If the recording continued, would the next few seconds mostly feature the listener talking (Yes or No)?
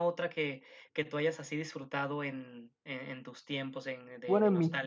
Yes